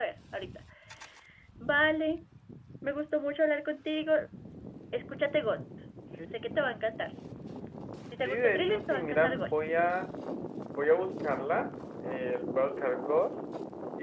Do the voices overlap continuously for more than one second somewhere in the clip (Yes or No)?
Yes